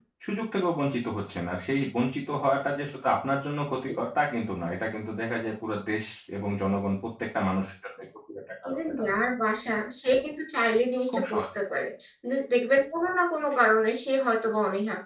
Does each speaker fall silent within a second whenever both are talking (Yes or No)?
Yes